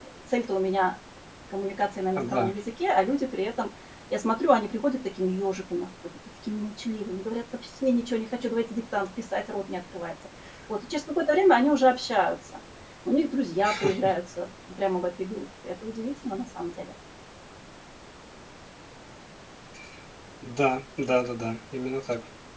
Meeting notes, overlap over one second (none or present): none